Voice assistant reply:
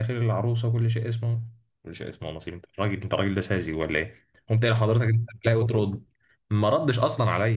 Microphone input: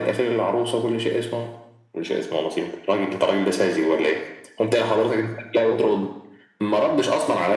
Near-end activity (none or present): none